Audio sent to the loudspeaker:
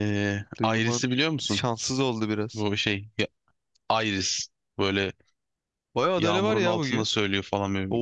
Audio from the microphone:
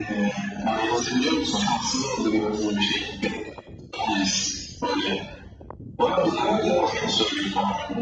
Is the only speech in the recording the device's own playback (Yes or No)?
Yes